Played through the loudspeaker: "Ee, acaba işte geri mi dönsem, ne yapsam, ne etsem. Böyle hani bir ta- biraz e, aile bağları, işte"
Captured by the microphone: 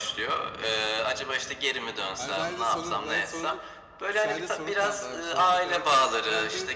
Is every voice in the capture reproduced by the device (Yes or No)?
No